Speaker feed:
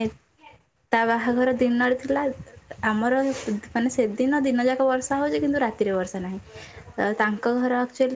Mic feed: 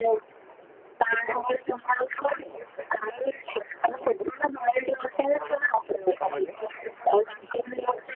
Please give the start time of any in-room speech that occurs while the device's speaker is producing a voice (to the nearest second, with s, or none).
6 s